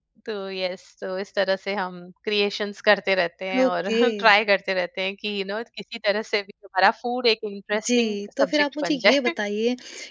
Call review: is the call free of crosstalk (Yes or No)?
No